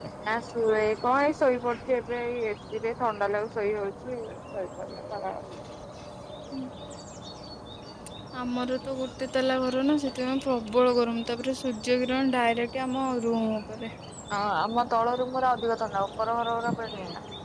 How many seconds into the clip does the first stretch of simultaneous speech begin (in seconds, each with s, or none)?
none